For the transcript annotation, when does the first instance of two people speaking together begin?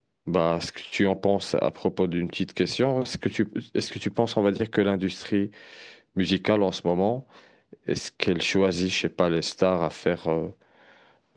none

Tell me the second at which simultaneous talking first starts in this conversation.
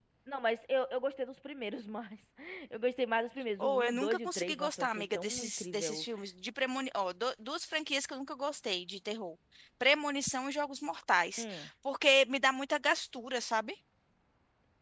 3.6 s

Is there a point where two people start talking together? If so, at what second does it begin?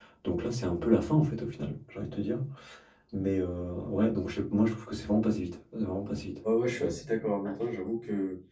none

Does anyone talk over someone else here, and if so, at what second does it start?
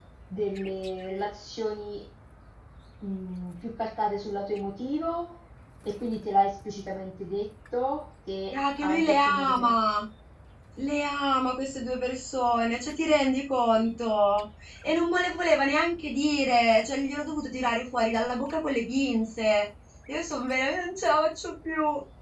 8.5 s

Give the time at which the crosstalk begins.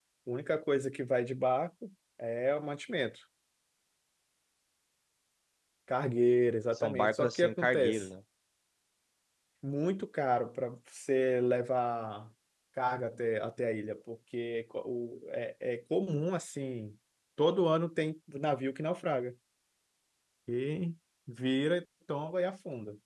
6.8 s

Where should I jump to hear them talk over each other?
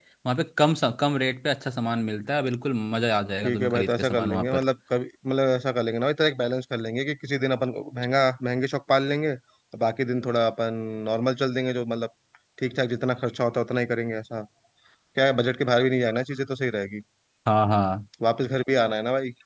3.4 s

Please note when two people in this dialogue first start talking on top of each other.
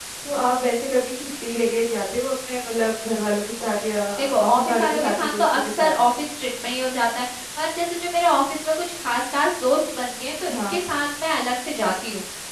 4.5 s

